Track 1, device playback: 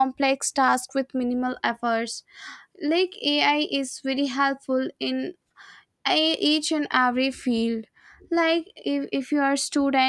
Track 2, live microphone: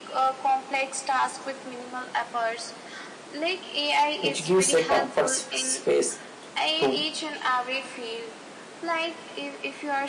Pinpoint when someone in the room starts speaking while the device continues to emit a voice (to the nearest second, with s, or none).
4 s